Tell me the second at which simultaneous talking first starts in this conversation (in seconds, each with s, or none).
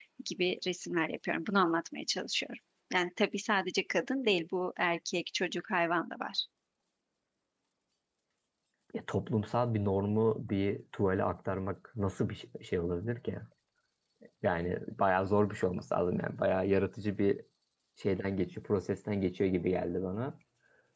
none